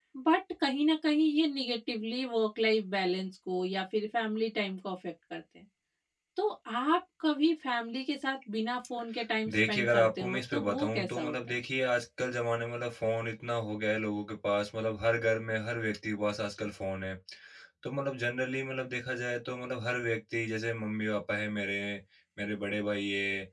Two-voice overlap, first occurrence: 9.5 s

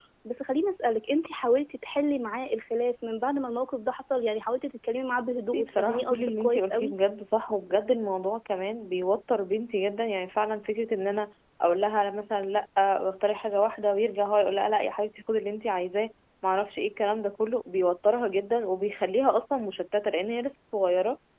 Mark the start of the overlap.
5.5 s

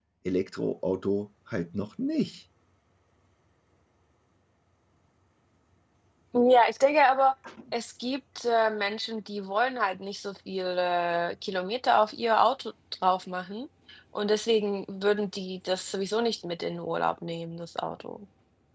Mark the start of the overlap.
none

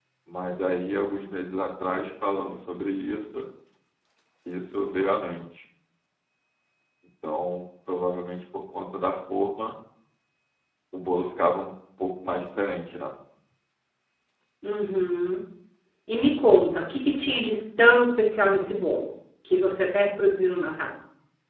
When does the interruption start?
none

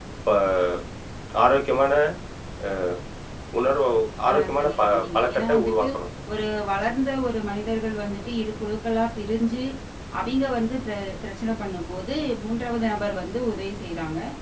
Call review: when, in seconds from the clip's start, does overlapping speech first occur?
4.3 s

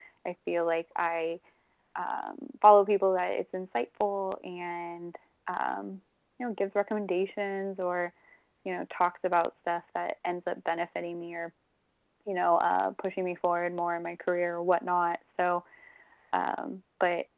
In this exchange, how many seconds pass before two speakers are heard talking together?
none

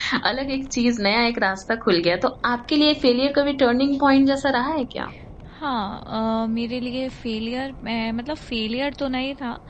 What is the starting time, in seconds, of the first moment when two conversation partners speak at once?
none

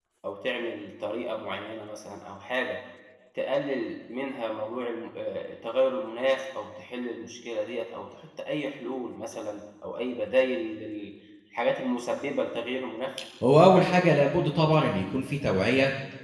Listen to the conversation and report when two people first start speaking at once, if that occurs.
none

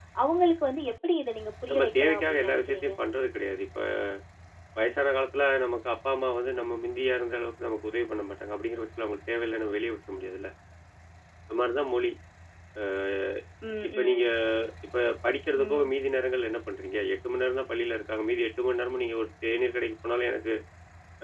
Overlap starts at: 1.7 s

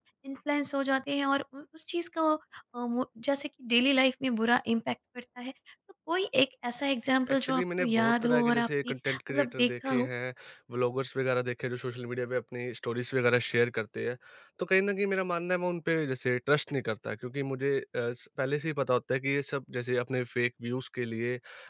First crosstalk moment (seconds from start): 7.3 s

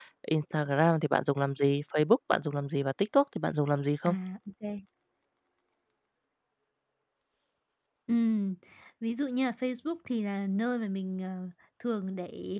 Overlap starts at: none

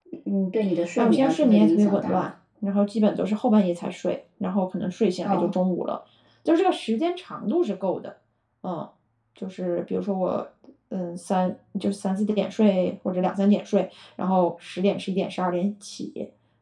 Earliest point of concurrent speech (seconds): 1.0 s

